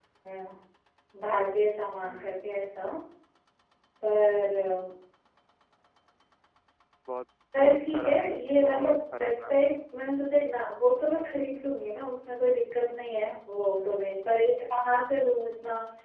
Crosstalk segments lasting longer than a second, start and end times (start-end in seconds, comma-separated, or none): 7.6-9.5